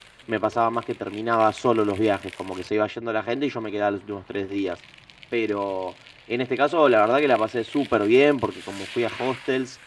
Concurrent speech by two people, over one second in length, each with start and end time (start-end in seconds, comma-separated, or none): none